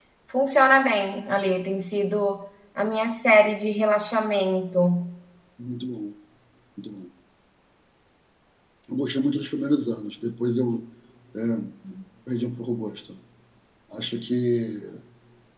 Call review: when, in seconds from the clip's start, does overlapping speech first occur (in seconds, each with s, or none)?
none